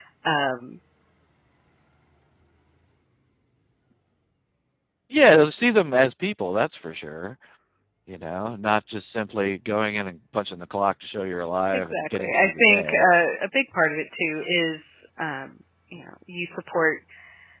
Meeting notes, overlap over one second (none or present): present